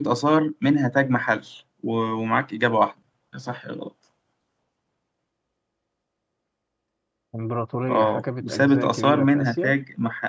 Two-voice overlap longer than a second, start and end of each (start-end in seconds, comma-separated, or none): 7.9-9.7